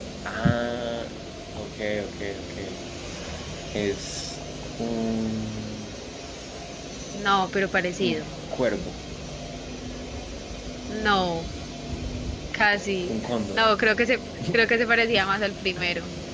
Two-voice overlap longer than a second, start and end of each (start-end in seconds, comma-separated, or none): none